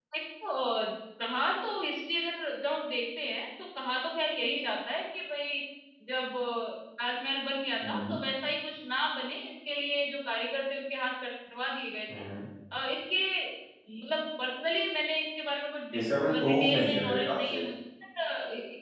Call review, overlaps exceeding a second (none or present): present